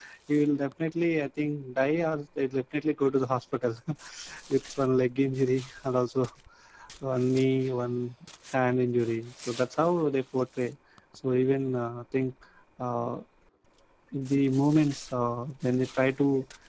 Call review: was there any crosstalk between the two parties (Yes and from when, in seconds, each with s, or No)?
No